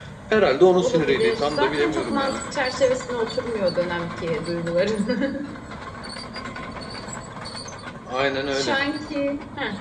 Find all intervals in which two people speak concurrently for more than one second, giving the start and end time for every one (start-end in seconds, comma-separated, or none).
0.8-2.4